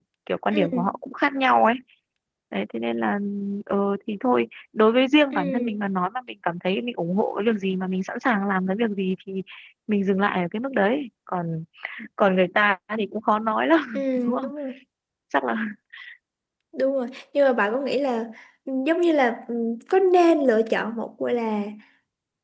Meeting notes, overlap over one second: none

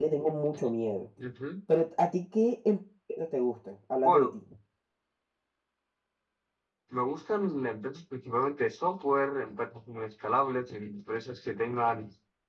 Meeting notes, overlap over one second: none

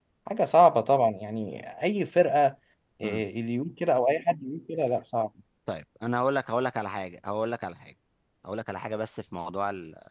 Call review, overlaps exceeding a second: none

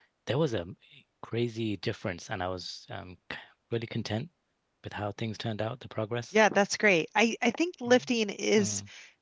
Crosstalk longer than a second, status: none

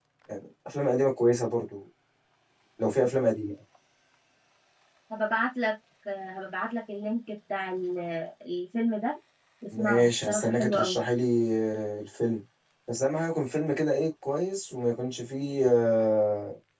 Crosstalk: present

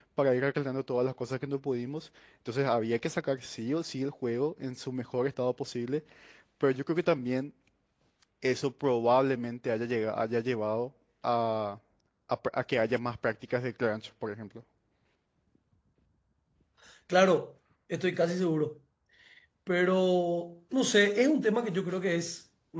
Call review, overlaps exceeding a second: none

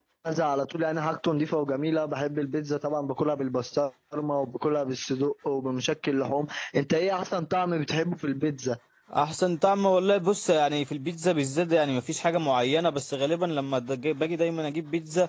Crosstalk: none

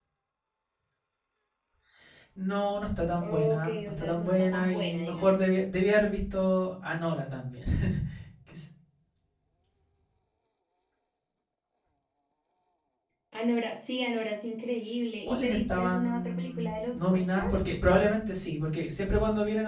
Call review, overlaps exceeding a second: present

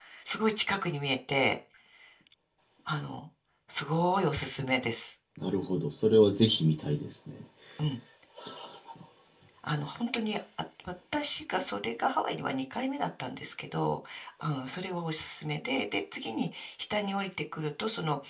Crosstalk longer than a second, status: none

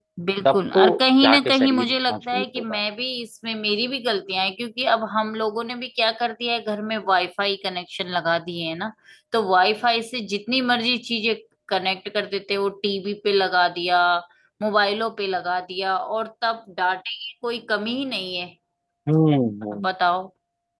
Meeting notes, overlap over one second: present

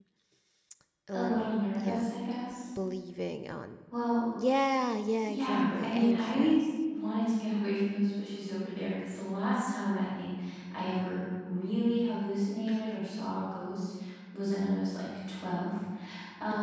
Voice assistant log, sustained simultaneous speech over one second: present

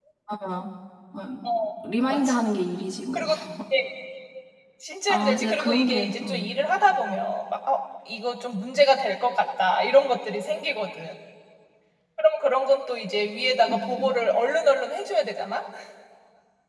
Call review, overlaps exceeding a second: present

